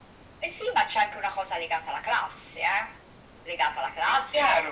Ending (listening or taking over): taking over